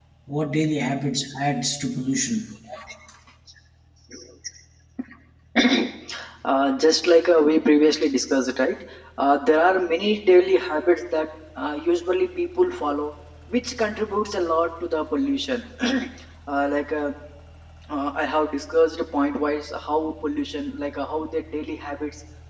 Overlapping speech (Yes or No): No